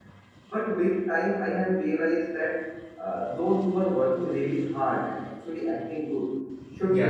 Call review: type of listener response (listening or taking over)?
listening